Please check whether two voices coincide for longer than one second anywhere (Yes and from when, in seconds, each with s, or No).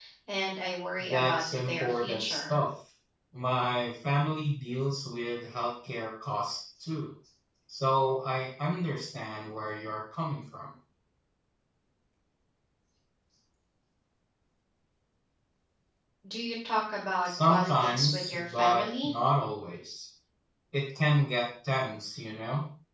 Yes, from 1.0 s